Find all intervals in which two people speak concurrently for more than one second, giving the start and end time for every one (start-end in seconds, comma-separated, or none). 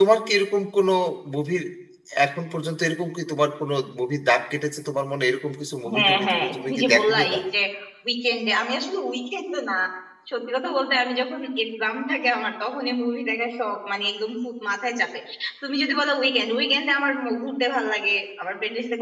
5.9-7.4